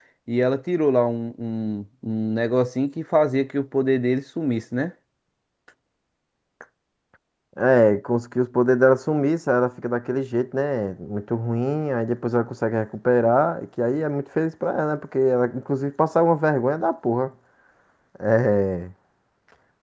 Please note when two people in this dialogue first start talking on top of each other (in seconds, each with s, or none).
none